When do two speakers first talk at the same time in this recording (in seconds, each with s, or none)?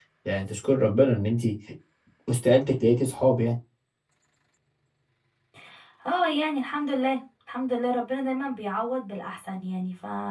none